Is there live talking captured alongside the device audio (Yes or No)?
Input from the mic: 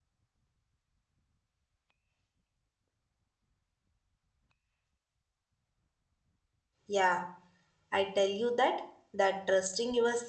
Yes